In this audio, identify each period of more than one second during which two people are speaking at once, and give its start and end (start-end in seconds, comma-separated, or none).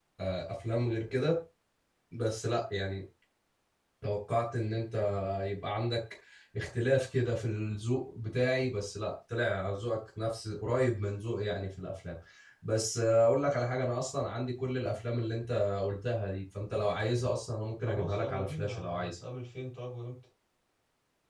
17.9-19.2